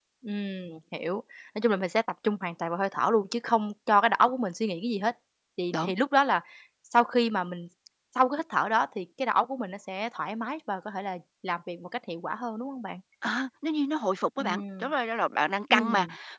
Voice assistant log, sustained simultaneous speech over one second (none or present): none